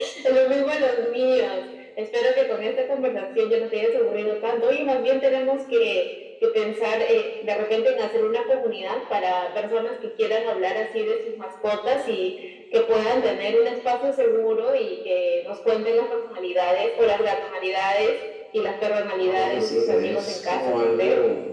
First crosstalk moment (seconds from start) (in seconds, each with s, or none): 19.2 s